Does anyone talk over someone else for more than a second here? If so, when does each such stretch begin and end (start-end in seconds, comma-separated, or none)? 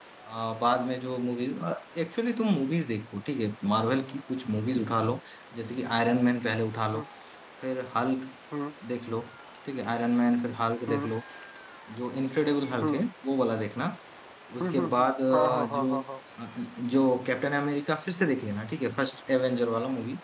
14.6-16.0